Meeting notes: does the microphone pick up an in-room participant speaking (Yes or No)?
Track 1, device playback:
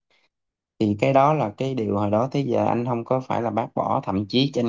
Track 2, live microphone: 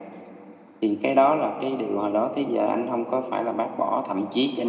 No